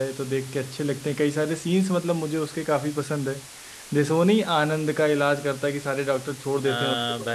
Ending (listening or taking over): taking over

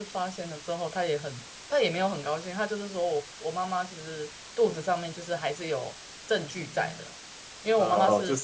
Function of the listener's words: taking over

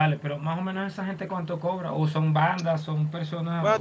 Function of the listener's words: taking over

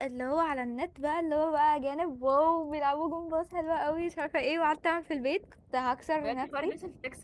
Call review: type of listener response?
taking over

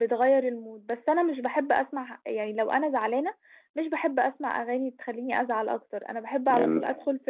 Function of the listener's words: listening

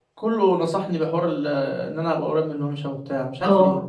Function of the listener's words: taking over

